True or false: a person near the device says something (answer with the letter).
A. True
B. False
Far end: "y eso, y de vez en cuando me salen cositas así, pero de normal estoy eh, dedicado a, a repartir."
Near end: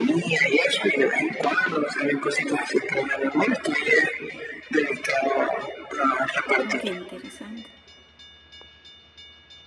A